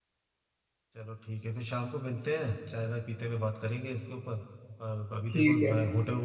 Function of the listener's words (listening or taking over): listening